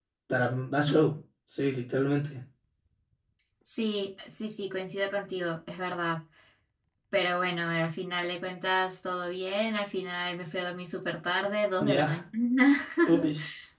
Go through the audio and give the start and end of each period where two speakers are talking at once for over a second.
none

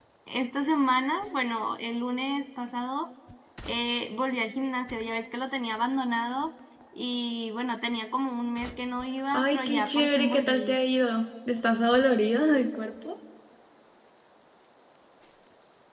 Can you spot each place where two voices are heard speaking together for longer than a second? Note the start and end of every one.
9.3-10.8

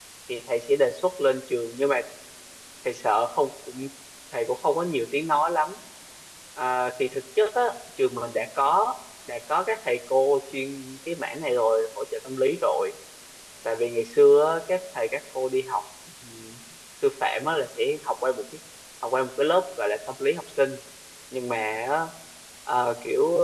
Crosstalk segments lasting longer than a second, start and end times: none

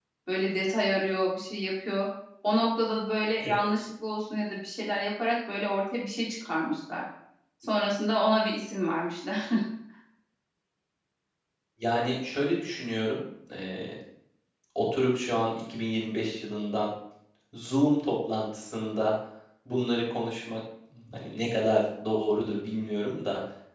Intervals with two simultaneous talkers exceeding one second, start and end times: none

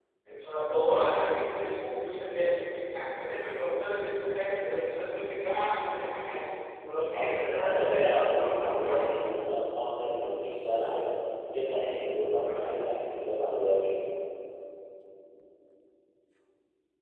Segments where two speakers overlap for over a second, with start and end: 7.1-9.2

